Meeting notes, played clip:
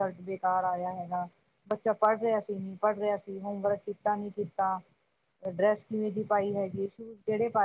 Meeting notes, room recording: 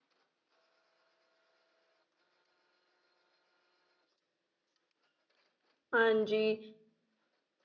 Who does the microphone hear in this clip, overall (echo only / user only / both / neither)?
user only